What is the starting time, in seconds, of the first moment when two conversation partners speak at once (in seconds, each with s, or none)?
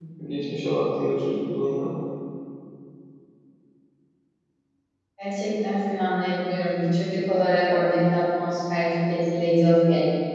none